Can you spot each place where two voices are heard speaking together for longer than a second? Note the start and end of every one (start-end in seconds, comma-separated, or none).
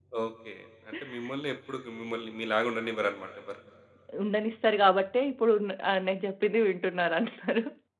none